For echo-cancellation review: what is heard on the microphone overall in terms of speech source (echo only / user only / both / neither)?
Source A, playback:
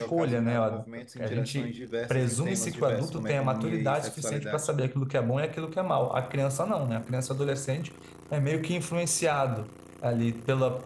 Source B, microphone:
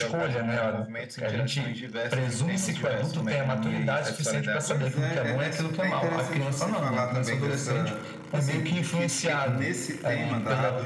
both